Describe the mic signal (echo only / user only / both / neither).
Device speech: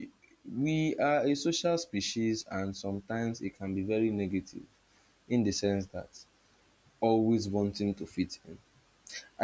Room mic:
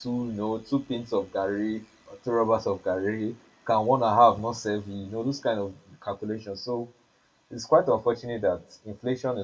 user only